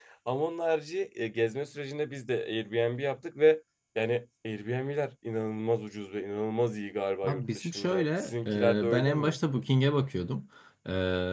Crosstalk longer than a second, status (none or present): present